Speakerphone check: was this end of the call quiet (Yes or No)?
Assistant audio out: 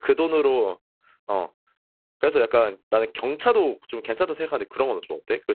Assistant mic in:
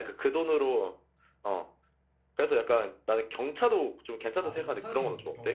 No